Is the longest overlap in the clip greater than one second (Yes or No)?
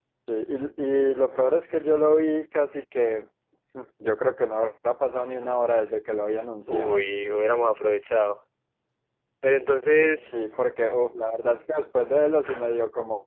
No